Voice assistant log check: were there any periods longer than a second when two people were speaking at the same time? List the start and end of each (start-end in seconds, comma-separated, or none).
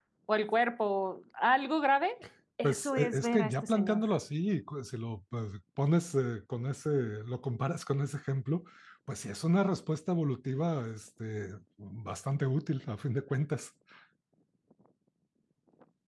2.6-4.0